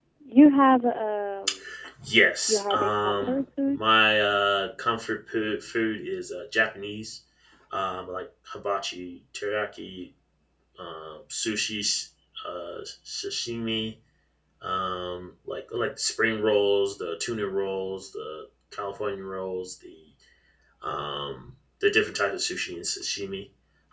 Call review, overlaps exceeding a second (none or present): present